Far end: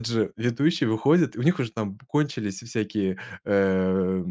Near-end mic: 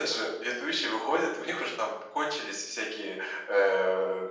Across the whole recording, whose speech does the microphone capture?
echo only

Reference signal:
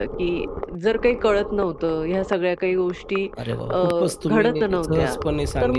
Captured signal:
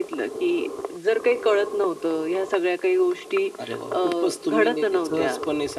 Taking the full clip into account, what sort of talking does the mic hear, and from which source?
echo only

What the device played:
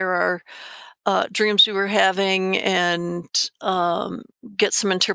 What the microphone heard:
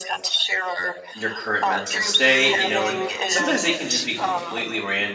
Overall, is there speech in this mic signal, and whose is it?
both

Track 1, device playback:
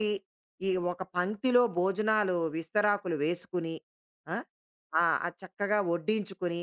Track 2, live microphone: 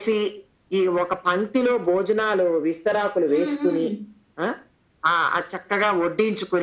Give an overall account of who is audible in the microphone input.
both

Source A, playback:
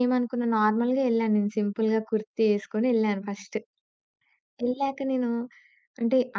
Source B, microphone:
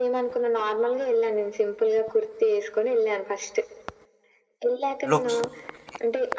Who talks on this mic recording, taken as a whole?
both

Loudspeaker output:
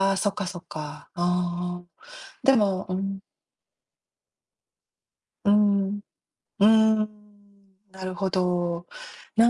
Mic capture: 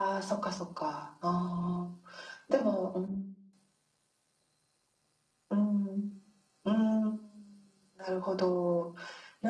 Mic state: echo only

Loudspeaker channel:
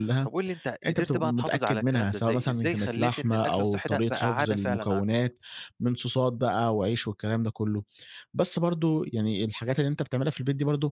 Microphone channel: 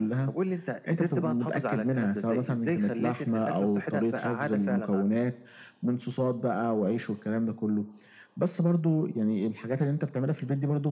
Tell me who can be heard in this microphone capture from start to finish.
echo only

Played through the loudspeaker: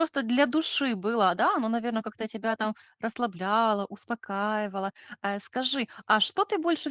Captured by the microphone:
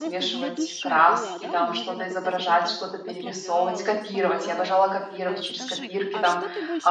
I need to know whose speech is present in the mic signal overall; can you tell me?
both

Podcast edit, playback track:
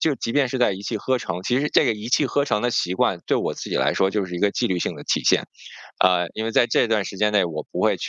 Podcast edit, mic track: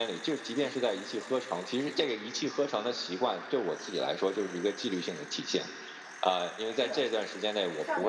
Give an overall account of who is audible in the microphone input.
both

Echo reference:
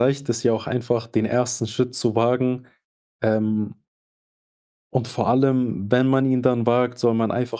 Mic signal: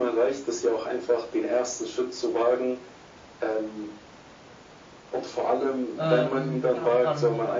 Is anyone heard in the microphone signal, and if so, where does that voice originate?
both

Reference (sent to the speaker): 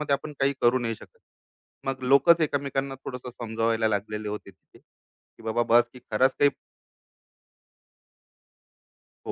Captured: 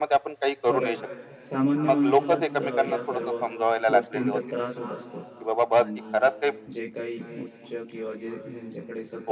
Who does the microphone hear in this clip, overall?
both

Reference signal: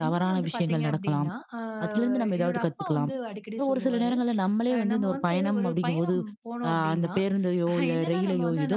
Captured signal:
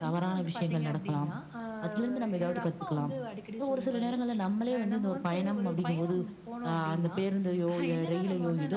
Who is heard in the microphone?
echo only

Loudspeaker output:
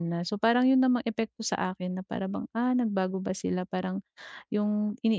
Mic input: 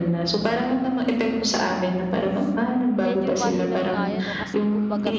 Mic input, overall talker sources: both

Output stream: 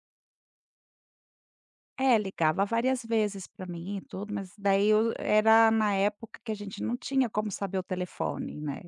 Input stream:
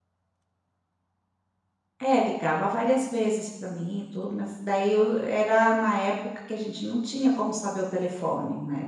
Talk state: echo only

